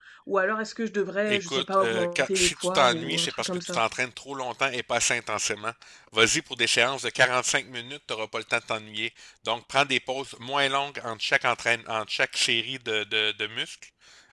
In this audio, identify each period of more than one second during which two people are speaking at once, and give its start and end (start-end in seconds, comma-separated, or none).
1.3-3.8